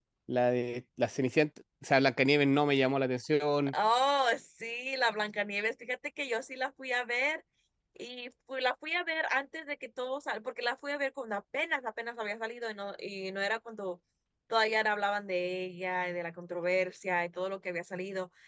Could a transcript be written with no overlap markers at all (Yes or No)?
Yes